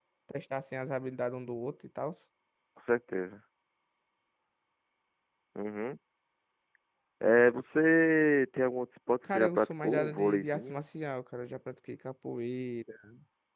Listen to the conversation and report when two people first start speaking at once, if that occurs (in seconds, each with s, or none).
9.2 s